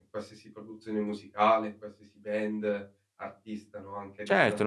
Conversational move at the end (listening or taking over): taking over